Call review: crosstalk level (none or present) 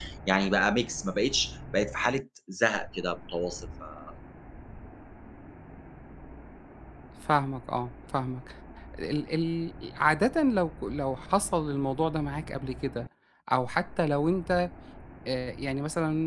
none